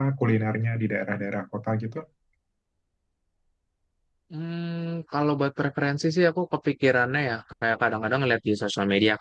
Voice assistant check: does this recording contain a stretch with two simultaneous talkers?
No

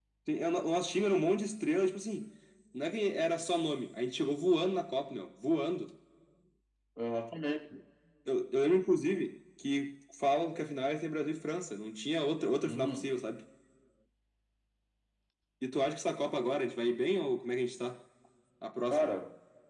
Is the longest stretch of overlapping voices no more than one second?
Yes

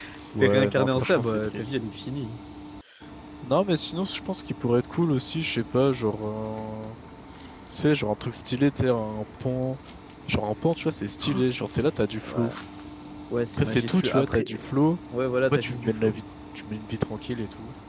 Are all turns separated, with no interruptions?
No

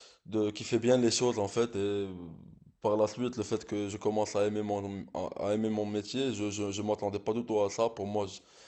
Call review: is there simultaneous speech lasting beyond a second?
No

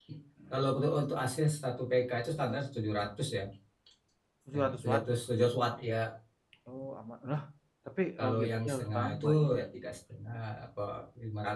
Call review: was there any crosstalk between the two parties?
Yes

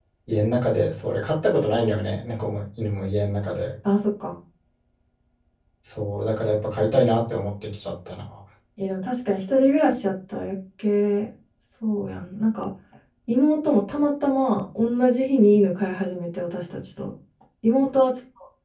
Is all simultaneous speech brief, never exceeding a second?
Yes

